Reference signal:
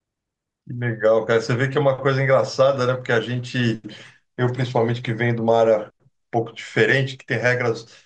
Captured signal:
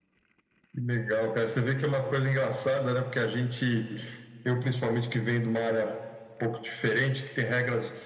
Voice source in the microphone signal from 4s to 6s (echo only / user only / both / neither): echo only